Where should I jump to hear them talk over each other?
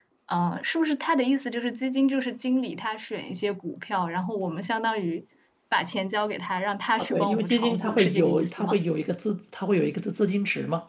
7.0 s

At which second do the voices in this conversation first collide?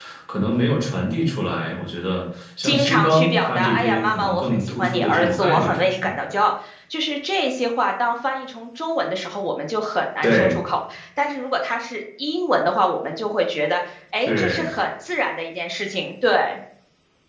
2.6 s

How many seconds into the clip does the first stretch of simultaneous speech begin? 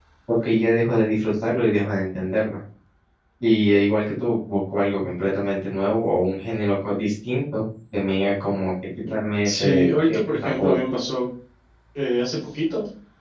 9.4 s

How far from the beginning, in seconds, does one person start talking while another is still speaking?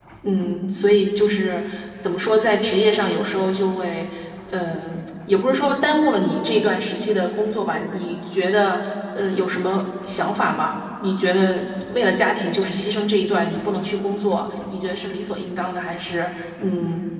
none

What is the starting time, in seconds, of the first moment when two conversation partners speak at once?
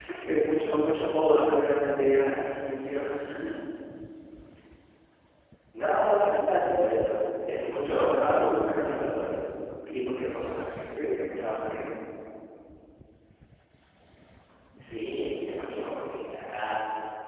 8.0 s

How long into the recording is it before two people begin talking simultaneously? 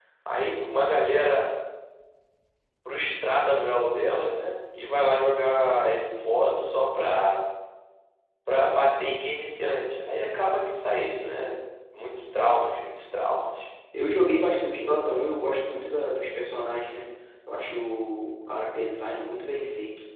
none

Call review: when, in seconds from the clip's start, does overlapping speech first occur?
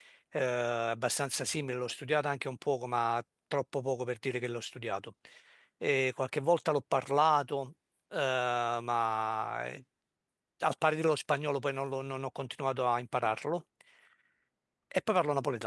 none

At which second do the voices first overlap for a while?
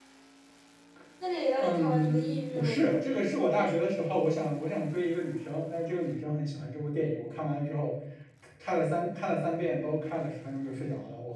1.6 s

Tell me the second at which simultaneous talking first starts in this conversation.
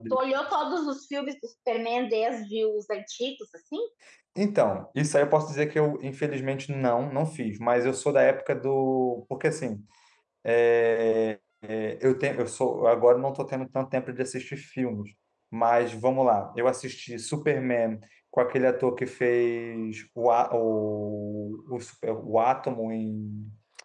none

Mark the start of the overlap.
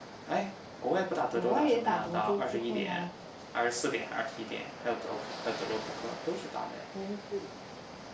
1.4 s

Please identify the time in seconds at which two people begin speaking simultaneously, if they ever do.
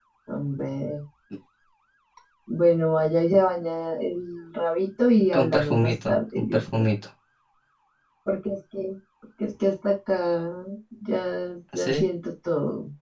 5.3 s

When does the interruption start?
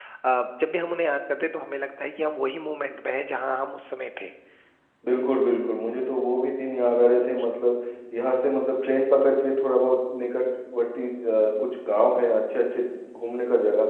none

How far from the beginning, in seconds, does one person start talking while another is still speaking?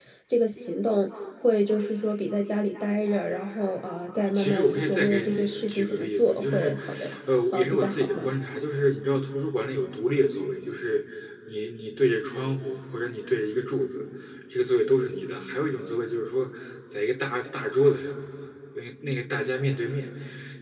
4.3 s

